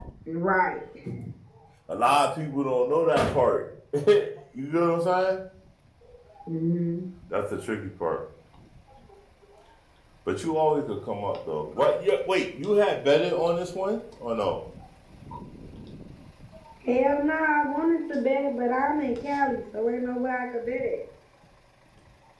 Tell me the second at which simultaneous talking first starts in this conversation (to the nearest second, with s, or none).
none